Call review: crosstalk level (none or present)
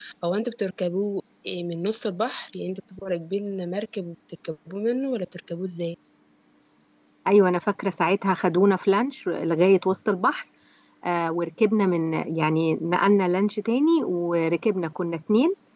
none